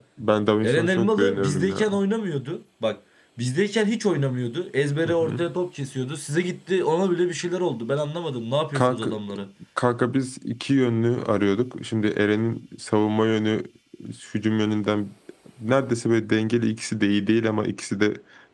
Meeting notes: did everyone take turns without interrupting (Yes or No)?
No